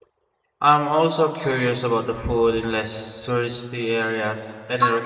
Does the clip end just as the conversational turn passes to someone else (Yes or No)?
Yes